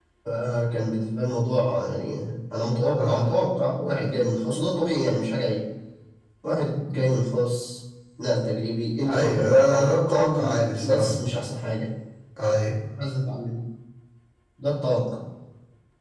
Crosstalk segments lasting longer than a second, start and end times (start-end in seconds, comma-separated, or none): 9.1-11.2